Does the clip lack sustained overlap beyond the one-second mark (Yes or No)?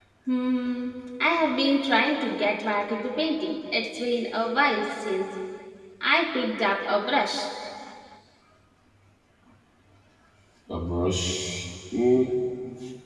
Yes